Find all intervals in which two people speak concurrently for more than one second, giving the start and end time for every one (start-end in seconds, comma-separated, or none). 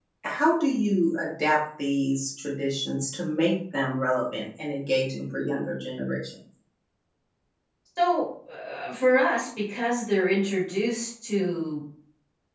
none